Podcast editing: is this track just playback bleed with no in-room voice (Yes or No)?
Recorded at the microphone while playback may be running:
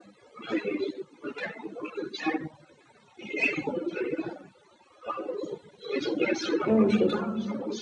No